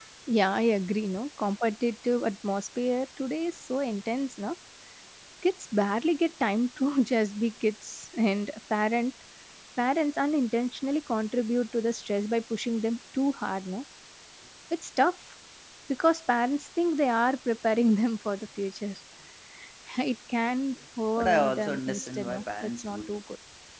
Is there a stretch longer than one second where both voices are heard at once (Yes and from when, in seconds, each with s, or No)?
Yes, from 21.2 s